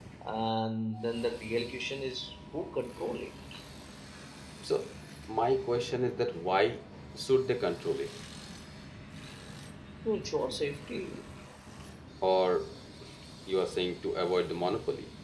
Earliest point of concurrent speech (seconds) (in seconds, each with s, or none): none